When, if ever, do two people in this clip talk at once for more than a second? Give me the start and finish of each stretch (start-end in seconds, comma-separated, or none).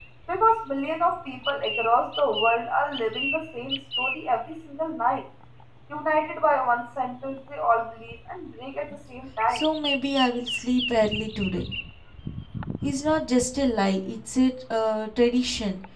none